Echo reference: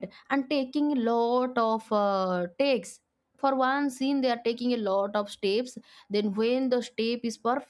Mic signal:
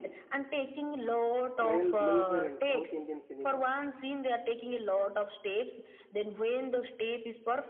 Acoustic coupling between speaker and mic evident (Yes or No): Yes